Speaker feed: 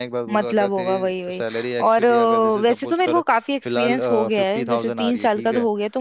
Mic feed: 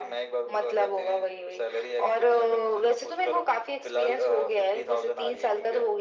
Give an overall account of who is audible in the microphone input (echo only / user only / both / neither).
echo only